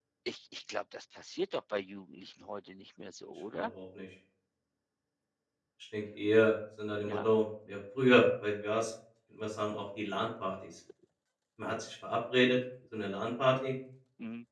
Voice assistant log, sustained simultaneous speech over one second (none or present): none